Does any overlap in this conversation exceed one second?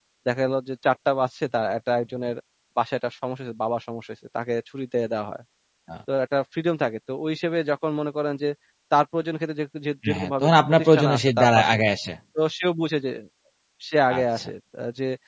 Yes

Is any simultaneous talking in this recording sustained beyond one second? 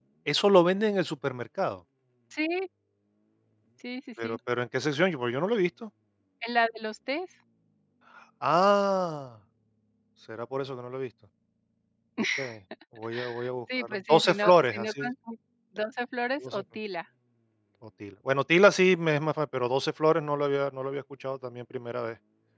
Yes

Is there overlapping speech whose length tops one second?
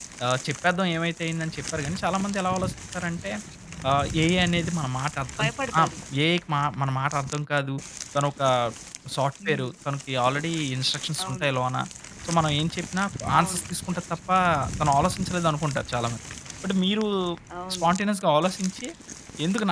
No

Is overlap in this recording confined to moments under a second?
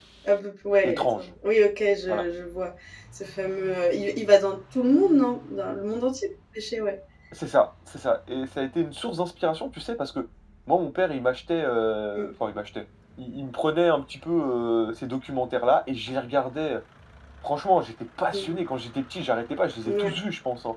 Yes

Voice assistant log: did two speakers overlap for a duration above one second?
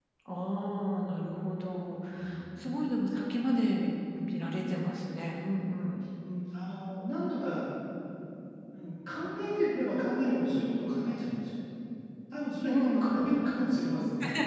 No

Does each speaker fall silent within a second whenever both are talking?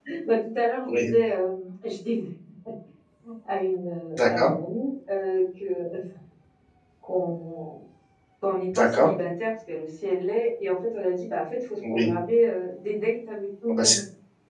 Yes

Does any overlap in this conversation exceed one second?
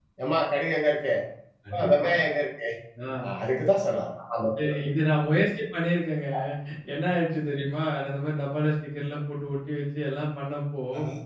No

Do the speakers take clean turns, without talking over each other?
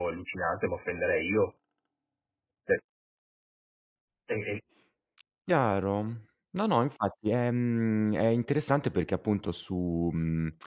Yes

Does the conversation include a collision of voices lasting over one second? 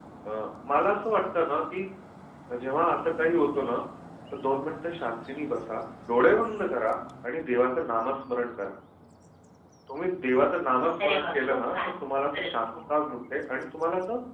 Yes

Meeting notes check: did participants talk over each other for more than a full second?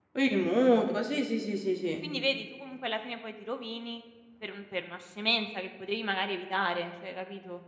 No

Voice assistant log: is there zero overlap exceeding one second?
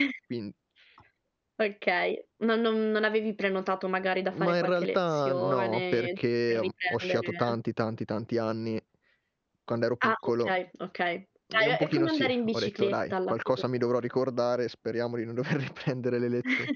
No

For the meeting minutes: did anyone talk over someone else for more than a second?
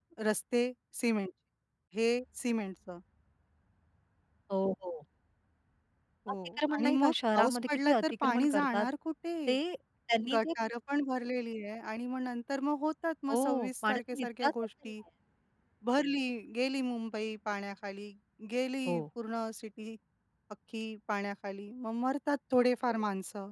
Yes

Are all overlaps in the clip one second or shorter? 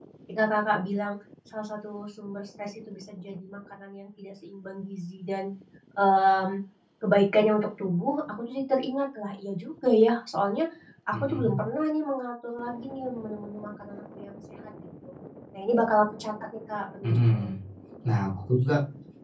Yes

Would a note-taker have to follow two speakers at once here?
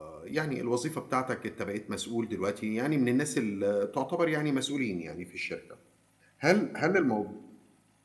No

